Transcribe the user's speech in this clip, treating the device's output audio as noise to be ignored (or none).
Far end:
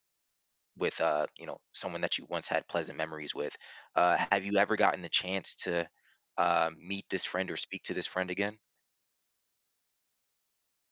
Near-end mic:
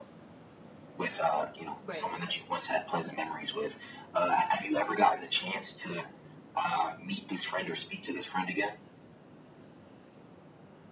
right,